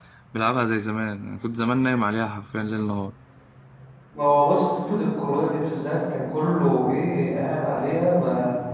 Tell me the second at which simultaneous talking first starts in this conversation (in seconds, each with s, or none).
none